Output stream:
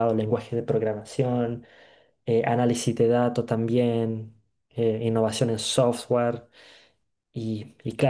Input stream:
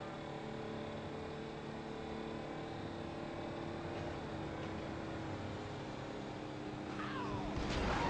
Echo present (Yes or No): No